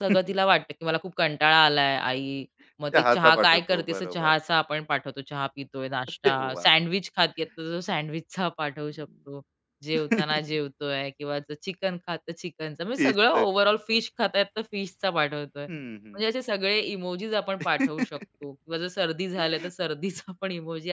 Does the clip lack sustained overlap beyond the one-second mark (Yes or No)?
No